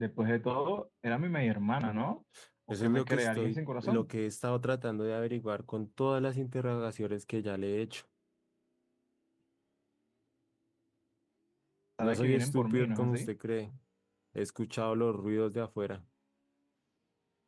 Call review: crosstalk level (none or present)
present